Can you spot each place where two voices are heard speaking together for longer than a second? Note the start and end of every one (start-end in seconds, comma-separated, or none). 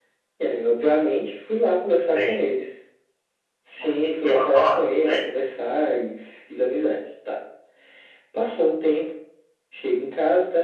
3.8-5.4